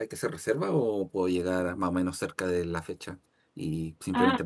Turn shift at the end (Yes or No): Yes